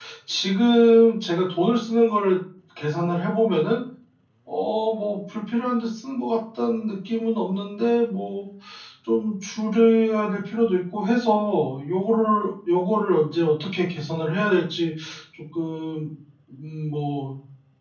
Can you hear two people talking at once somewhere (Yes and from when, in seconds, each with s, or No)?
No